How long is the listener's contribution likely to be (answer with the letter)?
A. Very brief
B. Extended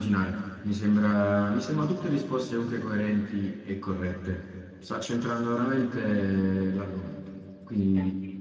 A